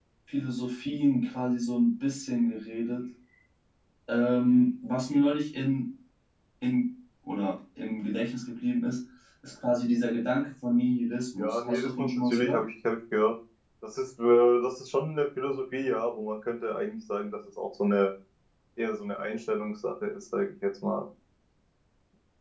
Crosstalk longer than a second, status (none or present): present